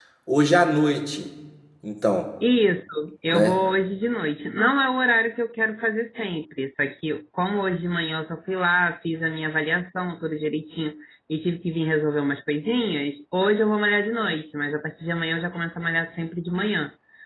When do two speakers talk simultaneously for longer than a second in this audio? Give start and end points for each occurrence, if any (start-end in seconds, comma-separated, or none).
none